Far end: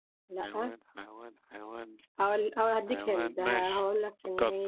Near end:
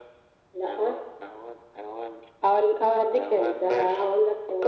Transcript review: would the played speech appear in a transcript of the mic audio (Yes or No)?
Yes